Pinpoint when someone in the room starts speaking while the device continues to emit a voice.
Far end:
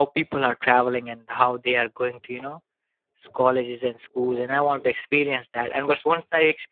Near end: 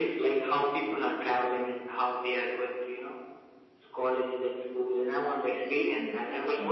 5.0 s

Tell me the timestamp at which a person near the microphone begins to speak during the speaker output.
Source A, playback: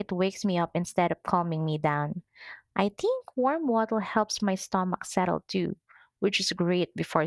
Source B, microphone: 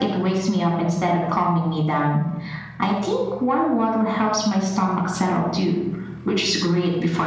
none

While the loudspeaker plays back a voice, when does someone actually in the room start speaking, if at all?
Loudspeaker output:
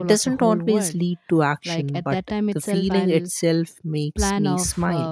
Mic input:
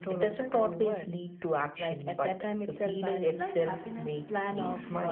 3.2 s

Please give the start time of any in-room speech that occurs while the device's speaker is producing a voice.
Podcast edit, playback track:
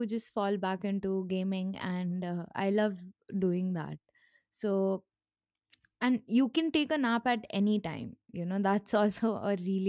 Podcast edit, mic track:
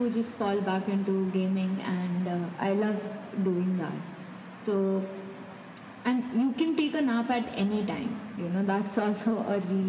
none

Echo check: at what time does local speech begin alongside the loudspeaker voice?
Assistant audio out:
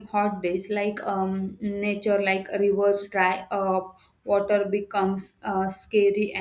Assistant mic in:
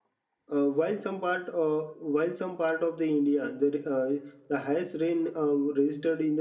0.5 s

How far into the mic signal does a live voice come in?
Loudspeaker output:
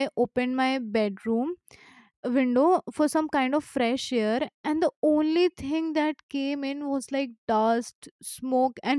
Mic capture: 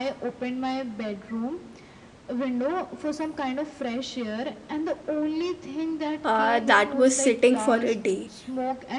6.2 s

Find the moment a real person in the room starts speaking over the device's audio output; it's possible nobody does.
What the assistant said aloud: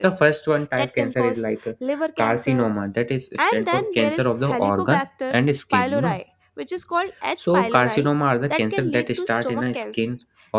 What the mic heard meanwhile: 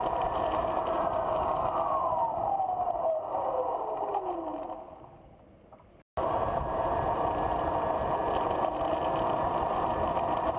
none

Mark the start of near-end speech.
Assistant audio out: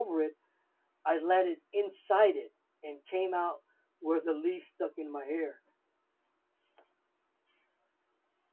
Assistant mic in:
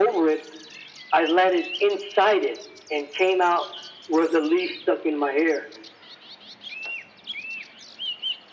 none

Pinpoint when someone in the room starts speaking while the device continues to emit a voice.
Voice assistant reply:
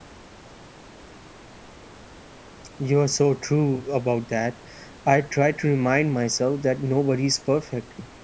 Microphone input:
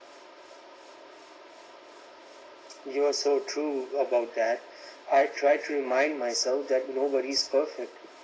none

